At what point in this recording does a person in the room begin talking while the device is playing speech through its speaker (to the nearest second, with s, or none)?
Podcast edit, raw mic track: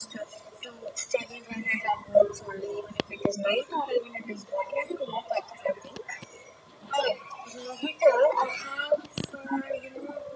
none